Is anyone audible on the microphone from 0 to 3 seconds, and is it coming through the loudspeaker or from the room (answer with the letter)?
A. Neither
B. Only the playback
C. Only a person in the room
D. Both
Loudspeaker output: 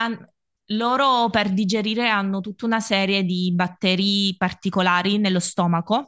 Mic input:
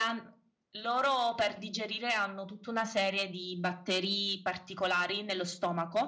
B